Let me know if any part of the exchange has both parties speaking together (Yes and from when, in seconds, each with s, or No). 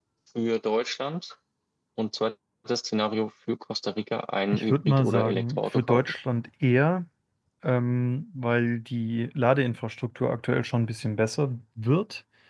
Yes, from 4.5 s